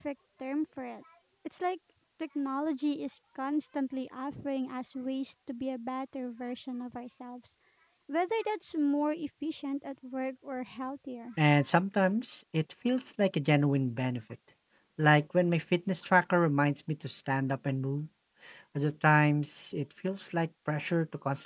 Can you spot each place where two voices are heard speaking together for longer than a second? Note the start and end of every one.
none

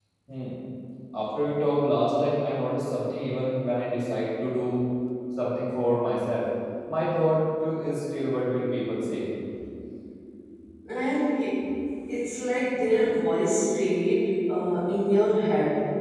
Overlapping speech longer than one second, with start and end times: none

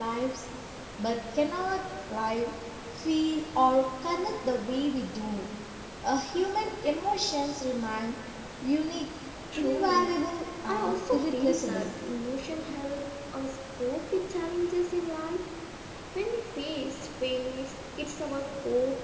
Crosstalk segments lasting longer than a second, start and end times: 10.7-11.9

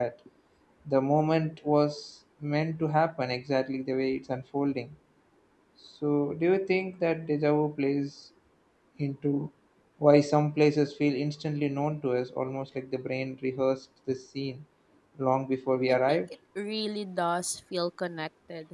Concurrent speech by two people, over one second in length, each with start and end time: none

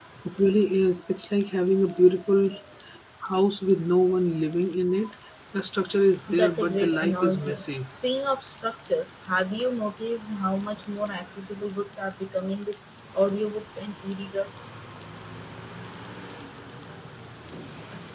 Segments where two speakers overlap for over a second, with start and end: 6.3-7.6

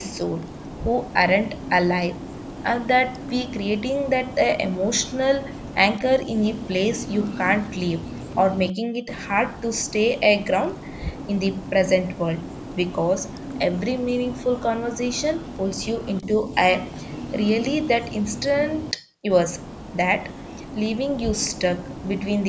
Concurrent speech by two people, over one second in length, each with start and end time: none

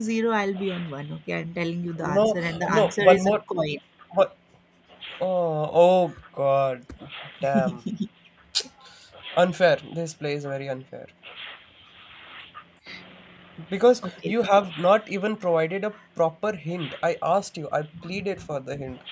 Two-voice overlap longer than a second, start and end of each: 2.0-3.3

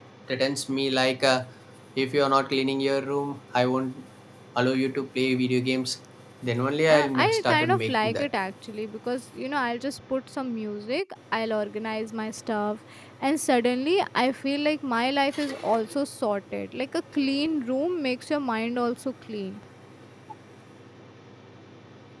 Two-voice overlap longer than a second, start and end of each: 6.9-8.3

